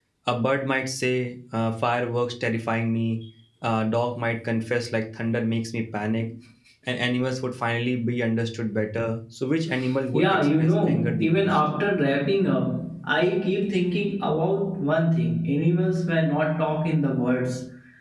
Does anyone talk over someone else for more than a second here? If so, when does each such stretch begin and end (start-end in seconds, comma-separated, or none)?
10.1-11.6